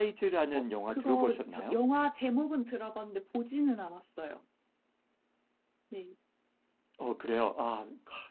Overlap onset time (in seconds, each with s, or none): 0.5 s